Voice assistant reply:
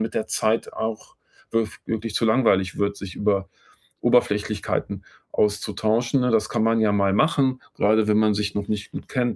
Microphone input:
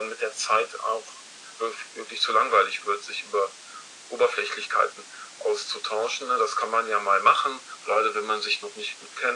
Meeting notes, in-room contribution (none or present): none